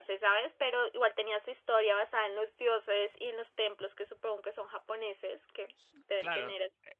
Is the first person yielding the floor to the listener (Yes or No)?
Yes